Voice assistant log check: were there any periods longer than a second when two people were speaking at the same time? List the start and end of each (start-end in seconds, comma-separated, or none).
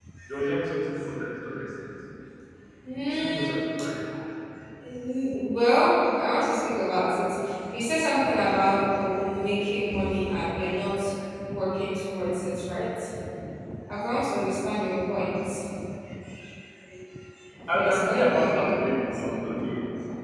17.7-19.2